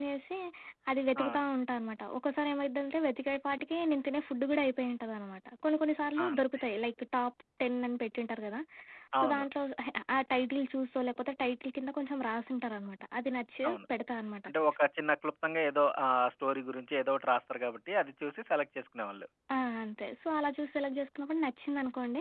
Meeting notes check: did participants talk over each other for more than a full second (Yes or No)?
No